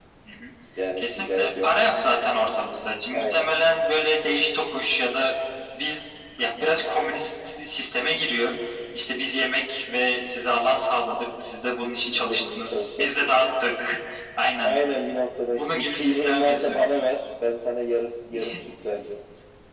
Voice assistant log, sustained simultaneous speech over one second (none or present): present